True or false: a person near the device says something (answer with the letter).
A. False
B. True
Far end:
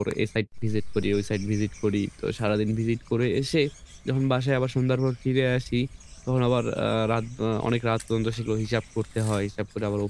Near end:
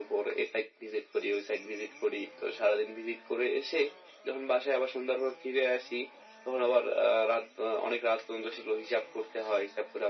A